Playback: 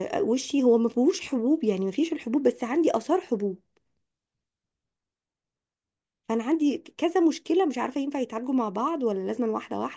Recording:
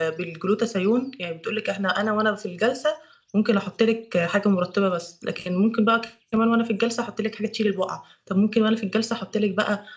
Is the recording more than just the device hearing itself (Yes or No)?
Yes